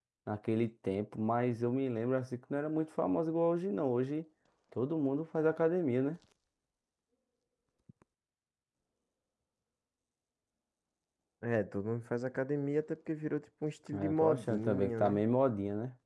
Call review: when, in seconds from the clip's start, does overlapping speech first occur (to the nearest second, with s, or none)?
14 s